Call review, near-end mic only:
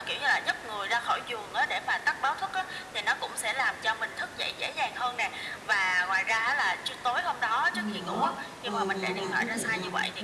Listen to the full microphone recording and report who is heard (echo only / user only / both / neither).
both